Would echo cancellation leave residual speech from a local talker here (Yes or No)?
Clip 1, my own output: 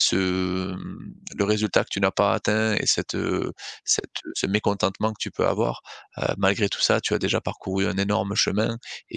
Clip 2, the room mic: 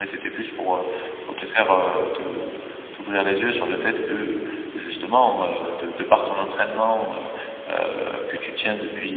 Yes